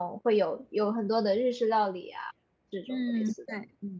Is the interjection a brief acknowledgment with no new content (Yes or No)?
No